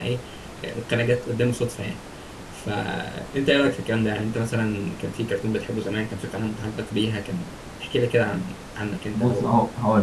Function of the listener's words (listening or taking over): taking over